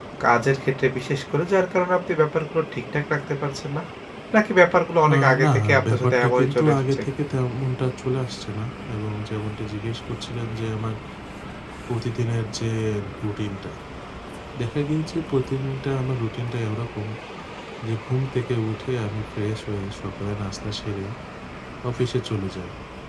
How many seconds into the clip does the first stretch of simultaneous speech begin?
5.1 s

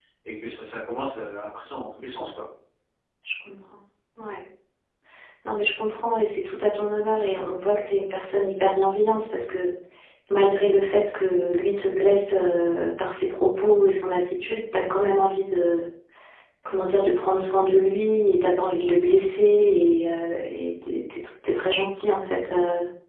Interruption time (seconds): none

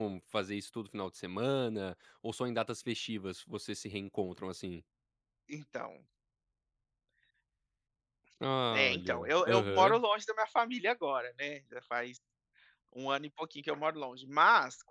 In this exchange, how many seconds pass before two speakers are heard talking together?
8.7 s

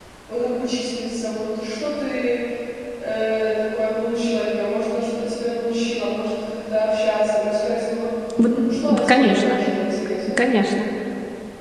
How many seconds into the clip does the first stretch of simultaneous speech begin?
8.4 s

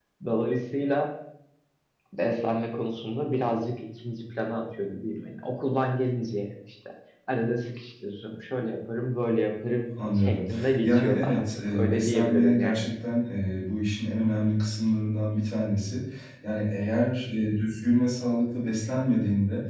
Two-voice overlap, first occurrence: 10.0 s

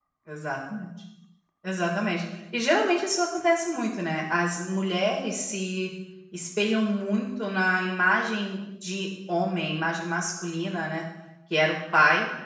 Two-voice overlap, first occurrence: none

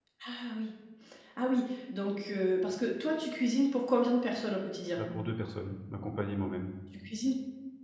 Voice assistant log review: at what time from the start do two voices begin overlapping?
none

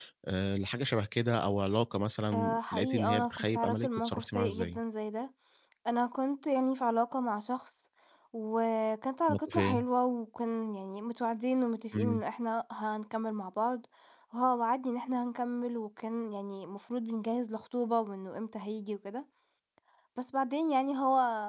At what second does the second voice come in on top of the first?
2.3 s

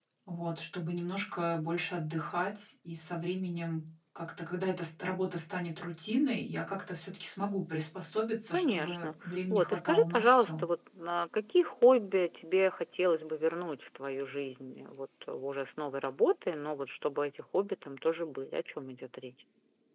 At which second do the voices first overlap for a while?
8.5 s

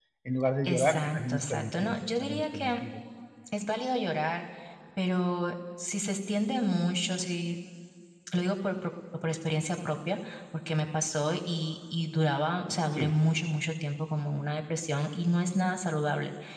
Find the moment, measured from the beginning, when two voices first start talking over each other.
0.6 s

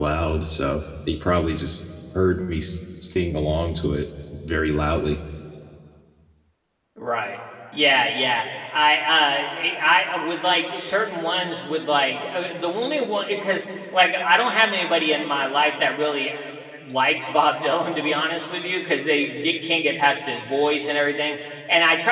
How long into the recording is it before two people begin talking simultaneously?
none

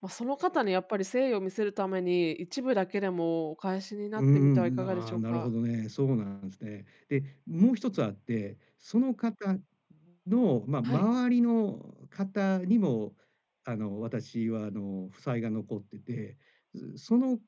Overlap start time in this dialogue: 4.2 s

